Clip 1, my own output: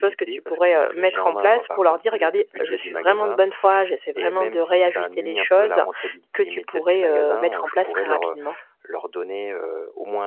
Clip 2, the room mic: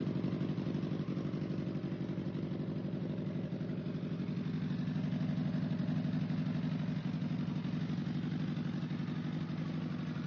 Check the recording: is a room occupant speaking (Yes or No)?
No